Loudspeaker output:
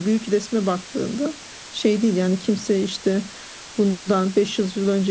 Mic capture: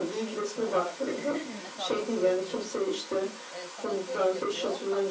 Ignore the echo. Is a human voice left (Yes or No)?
Yes